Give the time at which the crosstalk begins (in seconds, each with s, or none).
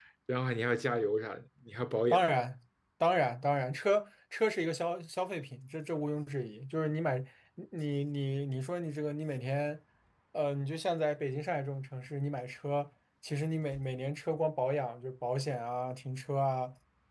none